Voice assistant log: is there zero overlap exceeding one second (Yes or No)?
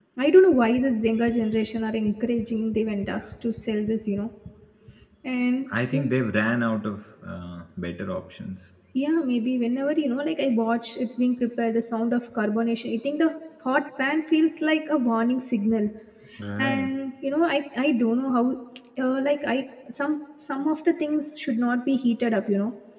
Yes